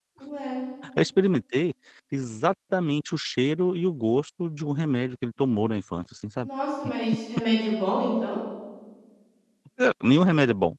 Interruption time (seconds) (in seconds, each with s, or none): none